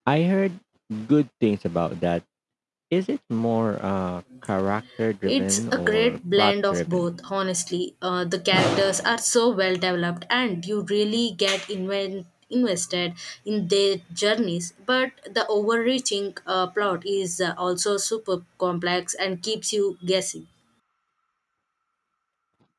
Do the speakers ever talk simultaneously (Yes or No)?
Yes